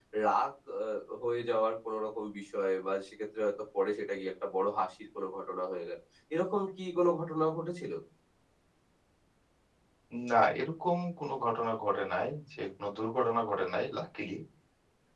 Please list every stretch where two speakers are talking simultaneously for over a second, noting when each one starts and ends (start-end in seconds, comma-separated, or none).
none